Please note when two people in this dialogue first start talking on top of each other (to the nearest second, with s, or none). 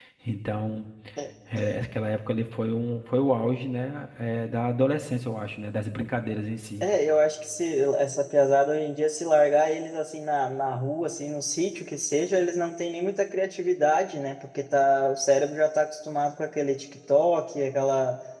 none